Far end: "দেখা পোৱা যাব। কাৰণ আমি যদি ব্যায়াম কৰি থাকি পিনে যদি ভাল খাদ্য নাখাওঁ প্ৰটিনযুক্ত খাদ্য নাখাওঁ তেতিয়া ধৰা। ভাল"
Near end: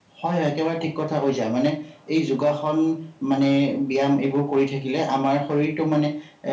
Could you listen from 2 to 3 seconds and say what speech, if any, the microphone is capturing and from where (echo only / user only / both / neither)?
user only